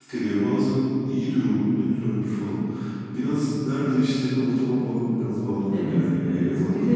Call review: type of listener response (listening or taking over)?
taking over